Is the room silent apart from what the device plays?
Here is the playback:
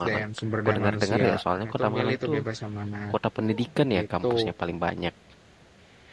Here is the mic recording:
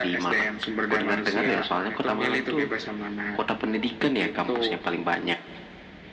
Yes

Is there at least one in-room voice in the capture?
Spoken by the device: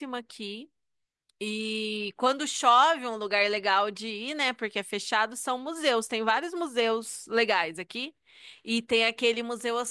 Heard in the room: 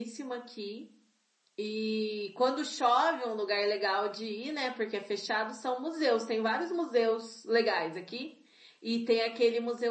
No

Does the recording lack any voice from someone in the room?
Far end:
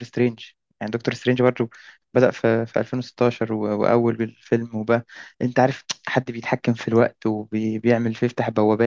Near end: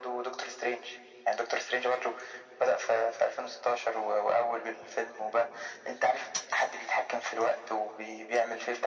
Yes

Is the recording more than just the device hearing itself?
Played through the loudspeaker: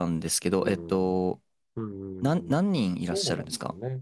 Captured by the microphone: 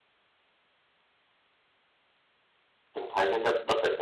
Yes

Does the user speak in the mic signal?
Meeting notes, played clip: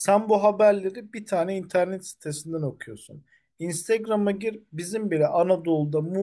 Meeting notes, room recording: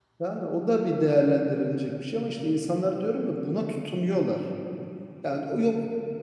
Yes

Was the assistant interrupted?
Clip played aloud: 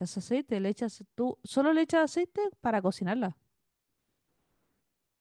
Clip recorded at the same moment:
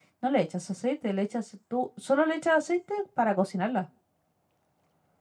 No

